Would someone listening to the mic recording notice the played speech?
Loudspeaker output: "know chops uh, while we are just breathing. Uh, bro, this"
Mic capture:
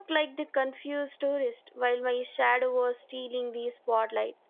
No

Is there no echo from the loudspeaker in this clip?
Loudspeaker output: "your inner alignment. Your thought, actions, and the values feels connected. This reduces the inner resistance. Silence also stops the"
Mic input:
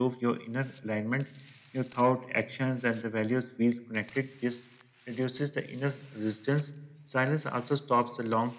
No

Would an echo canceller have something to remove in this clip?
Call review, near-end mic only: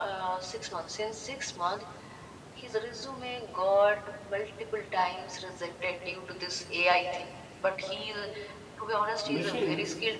Yes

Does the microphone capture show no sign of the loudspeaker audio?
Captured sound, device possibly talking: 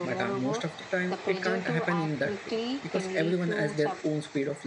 No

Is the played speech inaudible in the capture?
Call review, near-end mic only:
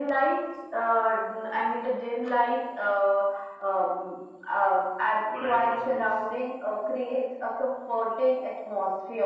No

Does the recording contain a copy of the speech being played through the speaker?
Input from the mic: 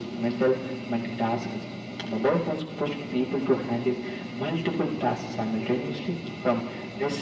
Yes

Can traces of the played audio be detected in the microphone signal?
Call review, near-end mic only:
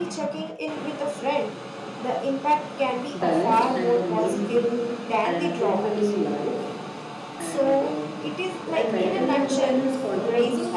Yes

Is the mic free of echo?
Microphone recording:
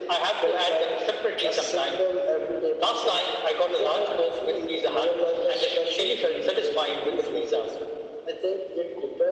No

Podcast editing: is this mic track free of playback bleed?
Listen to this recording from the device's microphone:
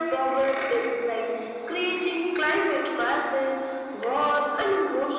No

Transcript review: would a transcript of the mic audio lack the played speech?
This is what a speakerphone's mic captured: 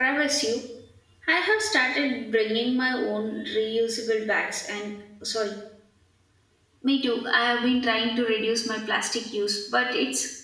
Yes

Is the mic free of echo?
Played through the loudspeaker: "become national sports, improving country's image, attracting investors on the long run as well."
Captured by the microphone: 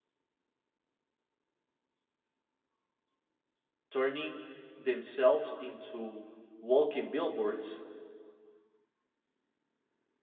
Yes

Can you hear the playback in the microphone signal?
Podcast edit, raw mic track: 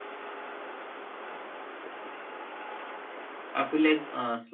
No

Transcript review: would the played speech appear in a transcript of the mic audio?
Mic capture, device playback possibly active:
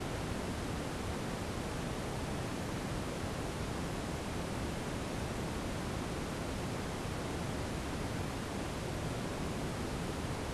No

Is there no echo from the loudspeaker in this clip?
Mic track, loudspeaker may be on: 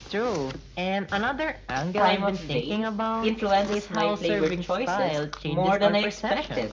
No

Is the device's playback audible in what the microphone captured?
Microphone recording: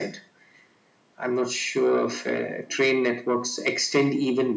Yes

